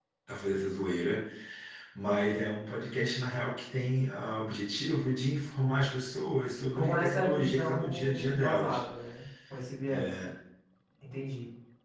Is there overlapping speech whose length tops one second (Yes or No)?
Yes